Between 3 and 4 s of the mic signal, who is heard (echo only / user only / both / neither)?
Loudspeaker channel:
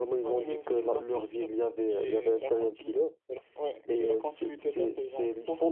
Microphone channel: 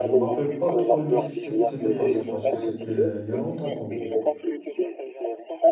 both